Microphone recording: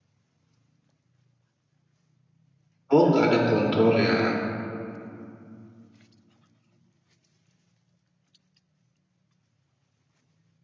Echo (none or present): none